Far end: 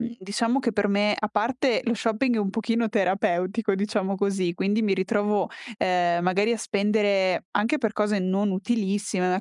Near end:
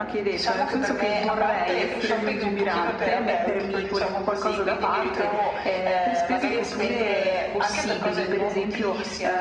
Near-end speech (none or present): present